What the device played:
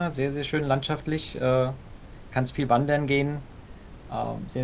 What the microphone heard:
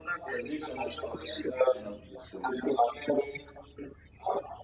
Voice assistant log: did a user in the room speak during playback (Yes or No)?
Yes